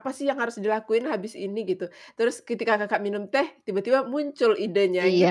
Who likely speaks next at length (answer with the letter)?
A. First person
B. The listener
B